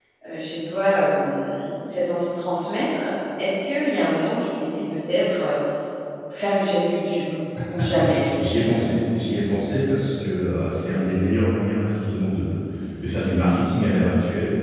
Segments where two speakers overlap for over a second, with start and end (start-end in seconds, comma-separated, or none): none